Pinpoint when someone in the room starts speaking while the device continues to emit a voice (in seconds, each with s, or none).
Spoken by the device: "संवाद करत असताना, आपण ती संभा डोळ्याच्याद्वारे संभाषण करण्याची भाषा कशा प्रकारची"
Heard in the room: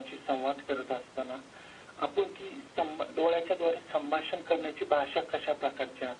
none